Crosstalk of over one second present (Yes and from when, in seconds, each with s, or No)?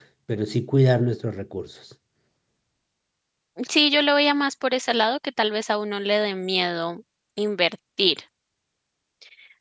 No